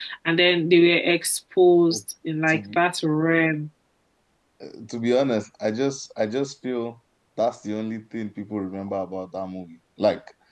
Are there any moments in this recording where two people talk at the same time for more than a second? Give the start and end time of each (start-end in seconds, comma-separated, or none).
none